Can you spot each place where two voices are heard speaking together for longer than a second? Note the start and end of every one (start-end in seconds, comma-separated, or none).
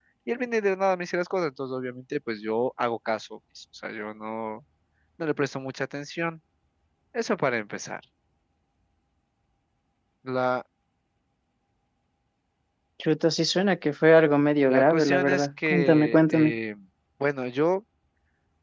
14.7-16.5